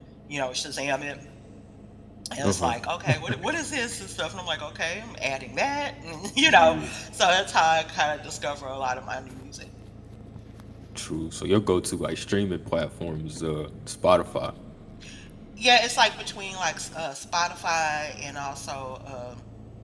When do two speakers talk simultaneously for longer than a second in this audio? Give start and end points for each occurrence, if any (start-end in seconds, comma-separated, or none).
none